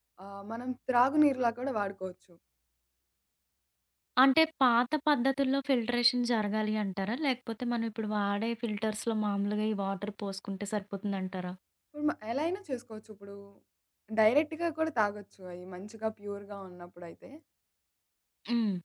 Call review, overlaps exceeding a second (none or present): none